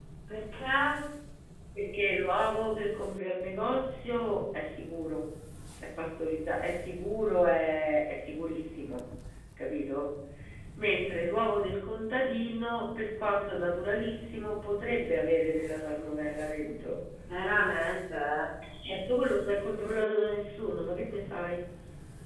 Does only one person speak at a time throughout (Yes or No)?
Yes